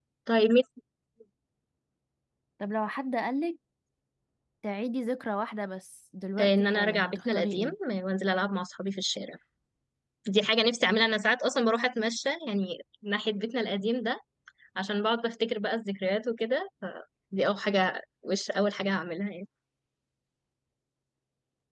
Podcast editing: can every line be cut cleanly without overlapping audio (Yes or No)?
No